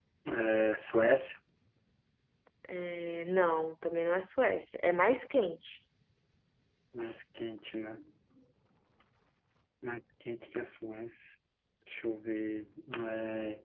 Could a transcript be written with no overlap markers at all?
Yes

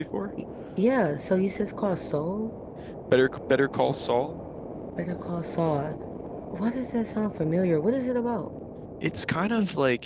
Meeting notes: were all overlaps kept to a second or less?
Yes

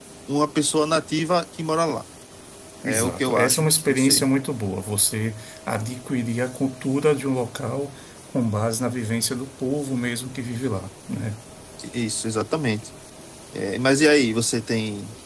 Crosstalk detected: Yes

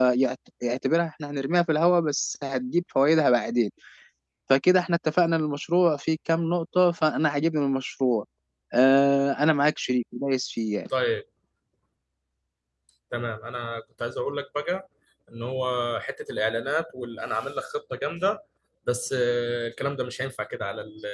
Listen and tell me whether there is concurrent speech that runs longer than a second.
No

